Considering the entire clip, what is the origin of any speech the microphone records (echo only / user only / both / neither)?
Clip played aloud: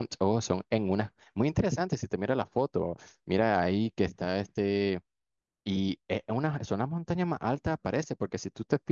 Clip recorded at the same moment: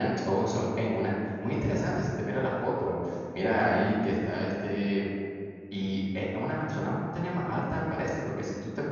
echo only